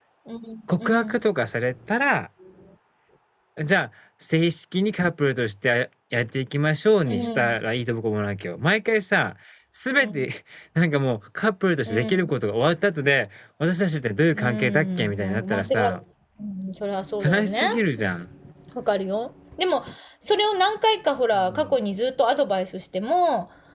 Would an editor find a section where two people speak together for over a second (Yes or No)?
Yes